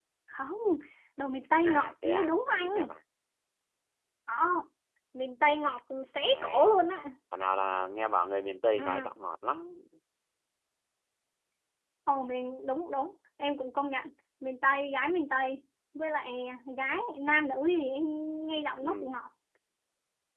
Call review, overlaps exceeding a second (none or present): present